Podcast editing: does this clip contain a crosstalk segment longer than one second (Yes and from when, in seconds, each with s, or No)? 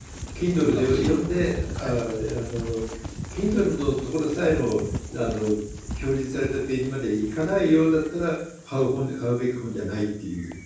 Yes, from 0.6 s